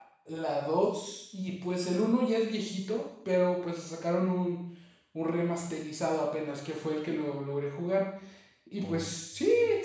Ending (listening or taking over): listening